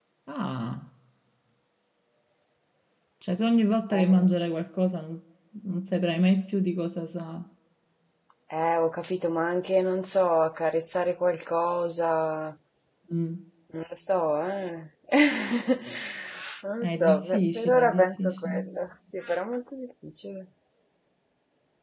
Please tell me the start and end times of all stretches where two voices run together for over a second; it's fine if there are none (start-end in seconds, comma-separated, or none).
16.8-18.5